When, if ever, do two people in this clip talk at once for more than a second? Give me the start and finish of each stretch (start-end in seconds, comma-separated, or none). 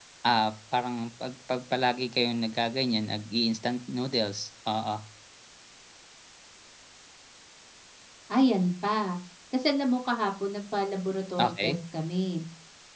none